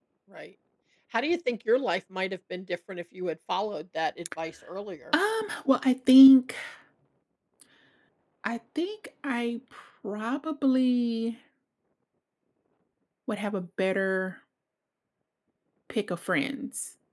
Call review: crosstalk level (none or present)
none